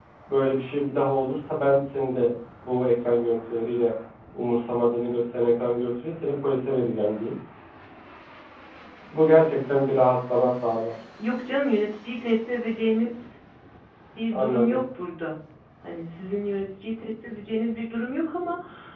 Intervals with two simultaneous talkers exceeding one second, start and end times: none

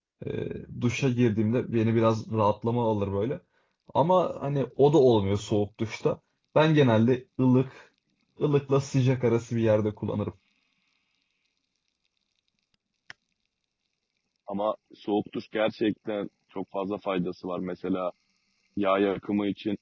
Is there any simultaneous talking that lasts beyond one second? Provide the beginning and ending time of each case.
none

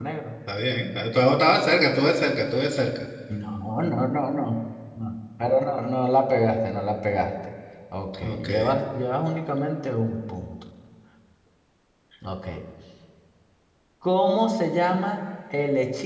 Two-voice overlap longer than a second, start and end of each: none

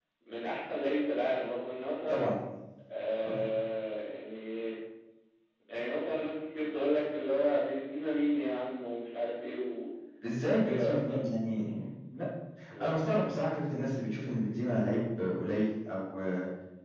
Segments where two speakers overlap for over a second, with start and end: 10.4-11.6

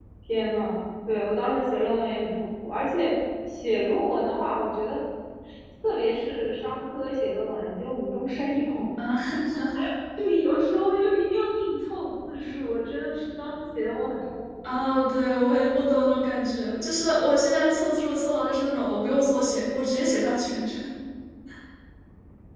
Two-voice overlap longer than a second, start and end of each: none

